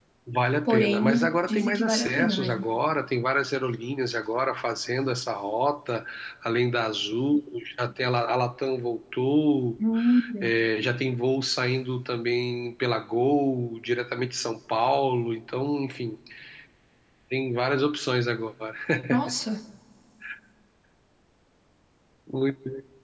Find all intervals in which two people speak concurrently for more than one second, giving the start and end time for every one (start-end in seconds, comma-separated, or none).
0.7-2.7